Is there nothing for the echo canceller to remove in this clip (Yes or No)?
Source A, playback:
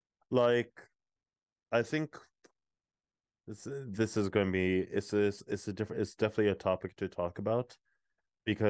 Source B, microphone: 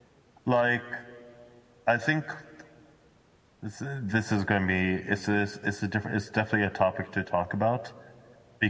No